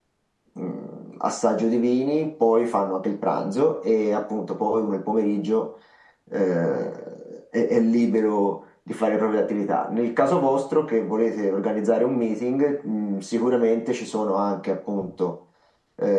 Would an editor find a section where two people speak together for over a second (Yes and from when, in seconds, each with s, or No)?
No